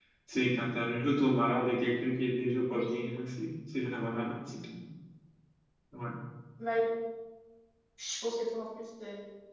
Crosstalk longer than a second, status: none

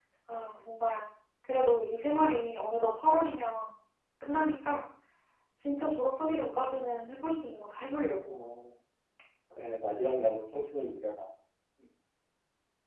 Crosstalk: none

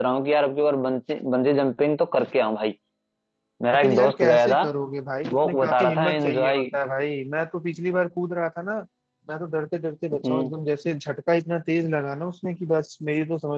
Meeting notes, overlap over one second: present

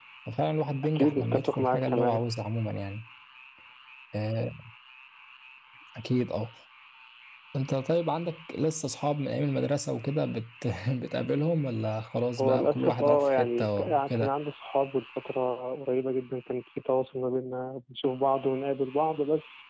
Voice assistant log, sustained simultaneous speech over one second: present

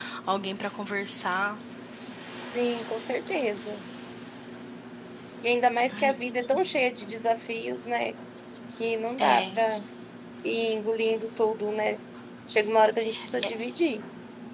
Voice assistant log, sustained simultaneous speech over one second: none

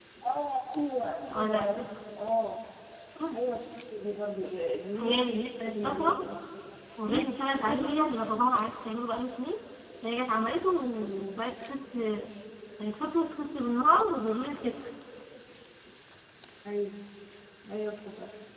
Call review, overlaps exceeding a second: present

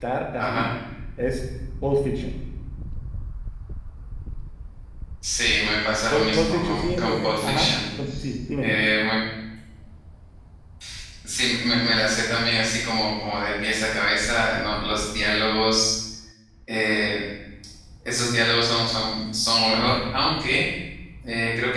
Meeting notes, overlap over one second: present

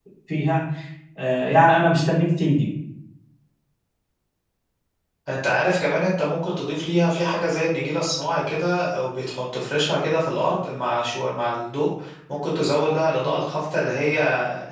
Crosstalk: none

